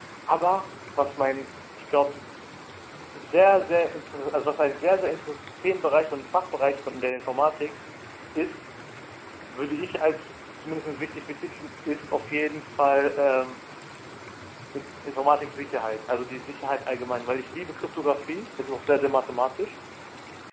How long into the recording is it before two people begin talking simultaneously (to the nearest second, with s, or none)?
none